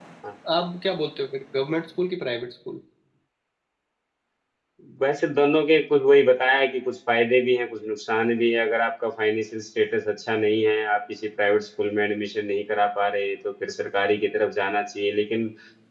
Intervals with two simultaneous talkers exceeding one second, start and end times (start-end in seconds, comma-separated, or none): none